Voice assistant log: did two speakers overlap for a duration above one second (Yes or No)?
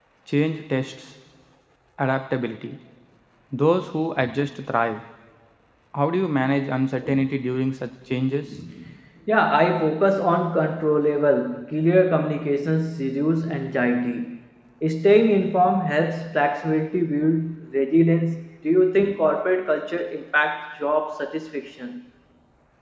No